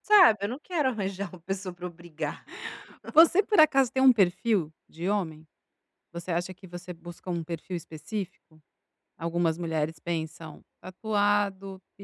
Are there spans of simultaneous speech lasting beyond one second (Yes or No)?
No